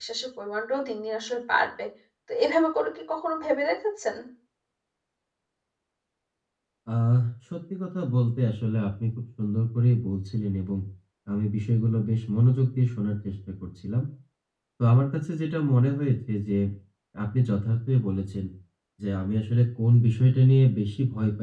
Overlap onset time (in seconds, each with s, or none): none